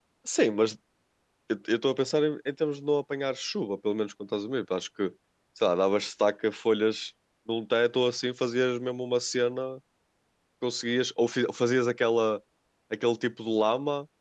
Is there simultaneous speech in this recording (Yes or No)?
No